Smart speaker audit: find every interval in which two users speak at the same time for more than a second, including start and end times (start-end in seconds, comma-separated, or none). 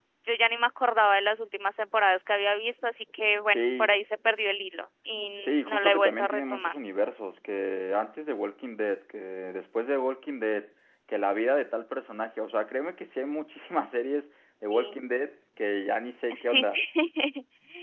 5.4-6.7